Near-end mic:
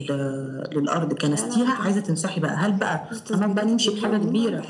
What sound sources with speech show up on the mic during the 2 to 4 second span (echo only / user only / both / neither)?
echo only